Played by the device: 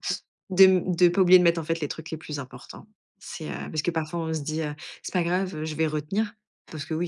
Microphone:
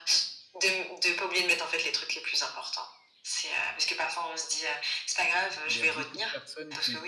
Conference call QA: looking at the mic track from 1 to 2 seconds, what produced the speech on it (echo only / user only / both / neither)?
echo only